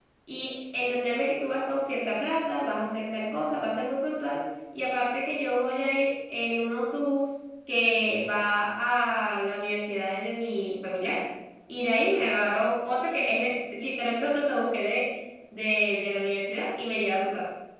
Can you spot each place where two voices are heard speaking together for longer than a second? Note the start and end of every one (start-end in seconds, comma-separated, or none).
none